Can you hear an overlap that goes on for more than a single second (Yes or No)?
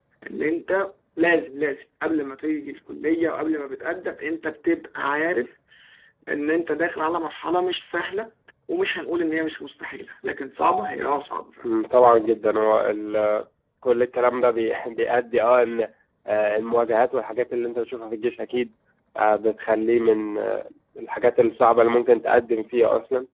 No